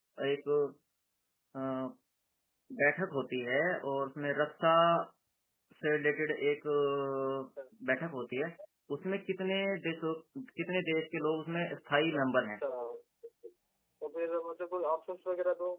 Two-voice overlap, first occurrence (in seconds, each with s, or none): none